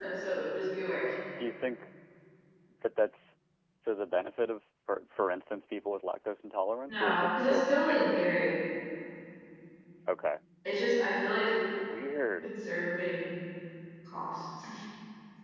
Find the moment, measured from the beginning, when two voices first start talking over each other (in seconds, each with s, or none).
6.9 s